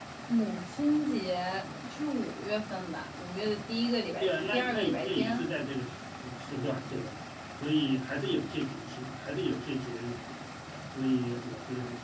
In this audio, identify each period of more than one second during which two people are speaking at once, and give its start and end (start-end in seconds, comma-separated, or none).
4.2-5.4